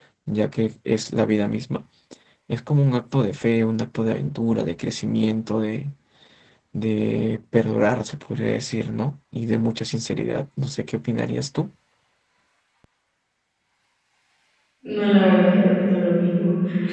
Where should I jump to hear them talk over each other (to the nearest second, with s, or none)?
none